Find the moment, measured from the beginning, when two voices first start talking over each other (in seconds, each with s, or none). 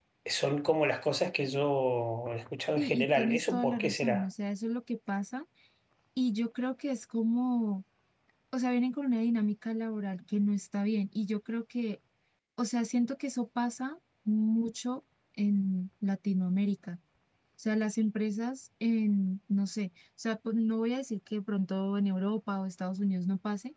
2.8 s